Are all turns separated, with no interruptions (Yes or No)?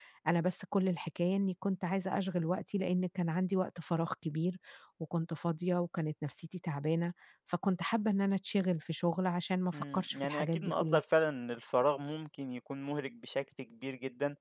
No